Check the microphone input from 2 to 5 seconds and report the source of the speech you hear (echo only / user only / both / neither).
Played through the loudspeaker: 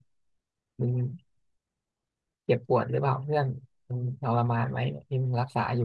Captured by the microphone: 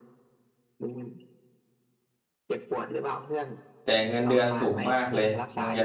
both